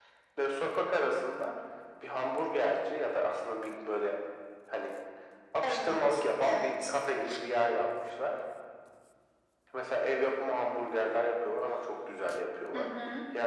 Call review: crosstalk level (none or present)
present